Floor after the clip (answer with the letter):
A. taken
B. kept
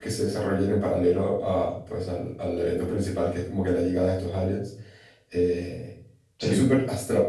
B